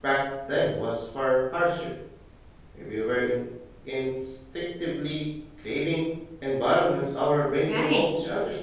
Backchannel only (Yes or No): No